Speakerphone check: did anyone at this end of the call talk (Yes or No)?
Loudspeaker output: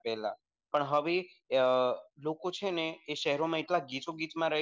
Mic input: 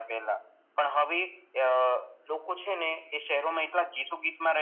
No